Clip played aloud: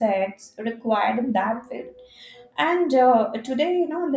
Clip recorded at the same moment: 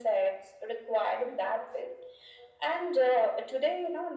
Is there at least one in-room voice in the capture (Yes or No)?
No